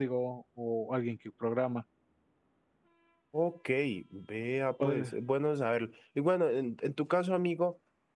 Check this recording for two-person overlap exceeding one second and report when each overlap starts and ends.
none

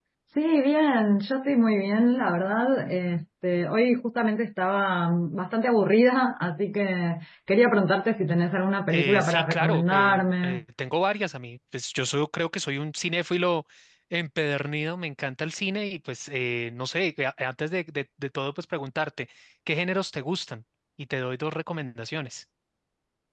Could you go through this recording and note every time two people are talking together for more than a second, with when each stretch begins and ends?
8.9-10.6

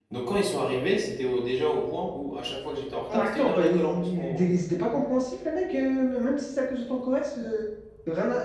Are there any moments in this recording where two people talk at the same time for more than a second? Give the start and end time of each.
3.1-4.4

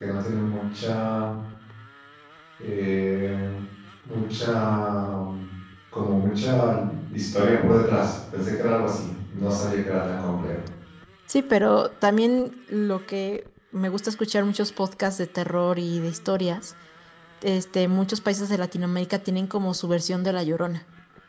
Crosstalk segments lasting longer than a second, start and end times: none

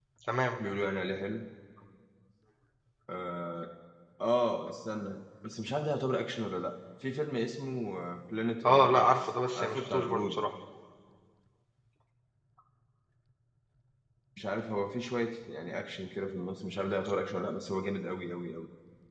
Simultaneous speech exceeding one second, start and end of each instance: 8.7-10.4

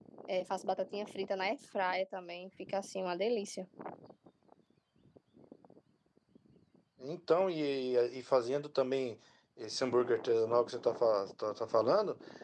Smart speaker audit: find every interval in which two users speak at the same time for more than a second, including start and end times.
none

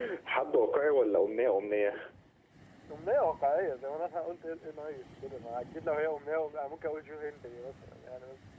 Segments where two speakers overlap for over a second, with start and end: none

